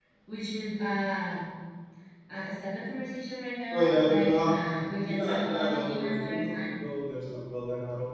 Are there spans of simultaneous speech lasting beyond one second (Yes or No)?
Yes